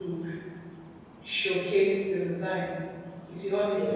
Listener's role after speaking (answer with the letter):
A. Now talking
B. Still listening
B